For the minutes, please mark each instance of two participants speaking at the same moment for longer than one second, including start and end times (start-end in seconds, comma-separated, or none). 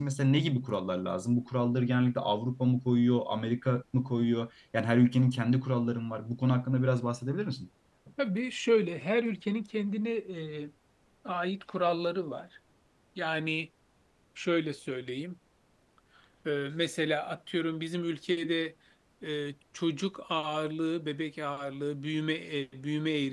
none